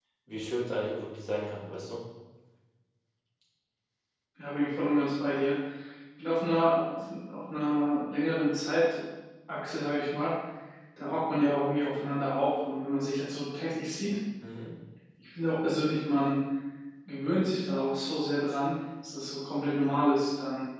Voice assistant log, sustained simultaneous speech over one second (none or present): none